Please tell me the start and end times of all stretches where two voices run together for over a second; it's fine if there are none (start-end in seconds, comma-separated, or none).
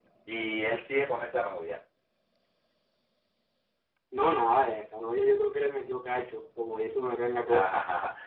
none